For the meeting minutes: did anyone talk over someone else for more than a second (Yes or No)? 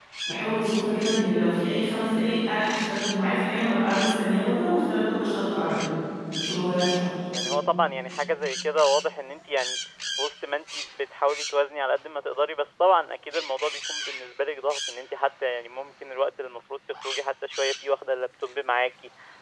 No